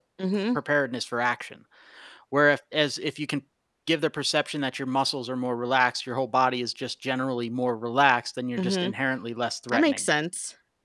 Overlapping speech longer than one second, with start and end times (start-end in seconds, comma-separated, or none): none